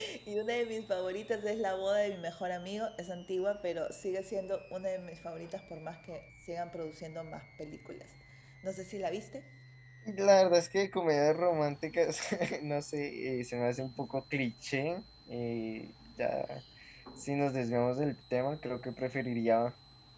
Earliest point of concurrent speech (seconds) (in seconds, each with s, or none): none